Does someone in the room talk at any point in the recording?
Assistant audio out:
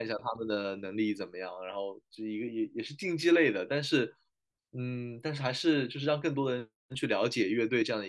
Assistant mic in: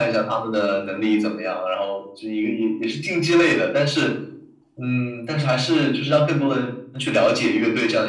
No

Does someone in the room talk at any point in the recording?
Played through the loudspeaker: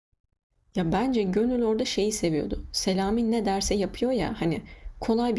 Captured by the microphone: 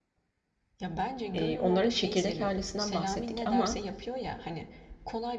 Yes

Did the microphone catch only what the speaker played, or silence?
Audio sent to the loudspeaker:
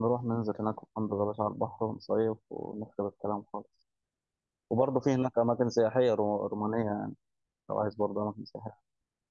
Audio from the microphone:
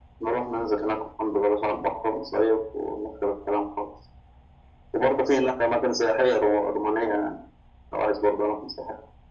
Yes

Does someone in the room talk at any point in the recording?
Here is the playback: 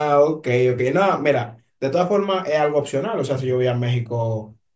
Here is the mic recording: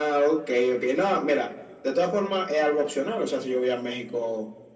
No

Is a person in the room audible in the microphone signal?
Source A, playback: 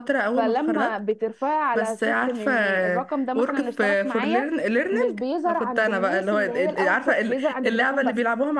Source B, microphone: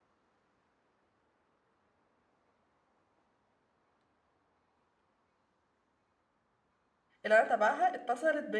Yes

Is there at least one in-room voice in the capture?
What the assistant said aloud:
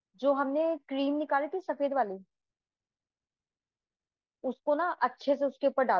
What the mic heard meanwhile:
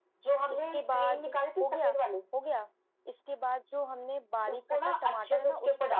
Yes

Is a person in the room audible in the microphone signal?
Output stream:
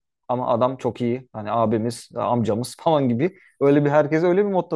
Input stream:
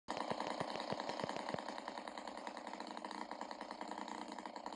No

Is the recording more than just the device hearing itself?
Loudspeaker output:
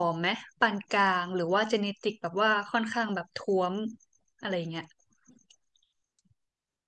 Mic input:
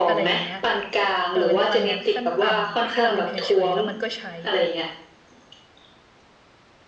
Yes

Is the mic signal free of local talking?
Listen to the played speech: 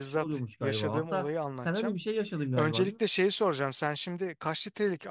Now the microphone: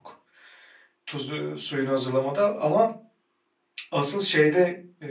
No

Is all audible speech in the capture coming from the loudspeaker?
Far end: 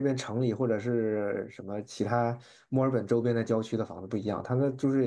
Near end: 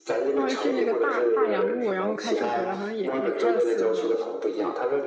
No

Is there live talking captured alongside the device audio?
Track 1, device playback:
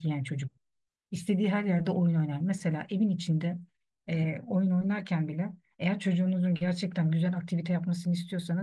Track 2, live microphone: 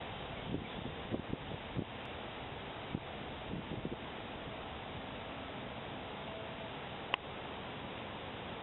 No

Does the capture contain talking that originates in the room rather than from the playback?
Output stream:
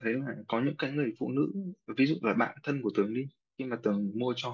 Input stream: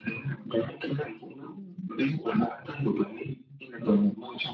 No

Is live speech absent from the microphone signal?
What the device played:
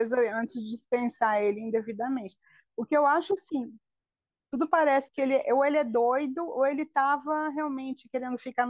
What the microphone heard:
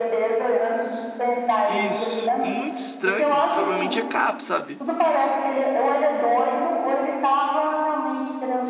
No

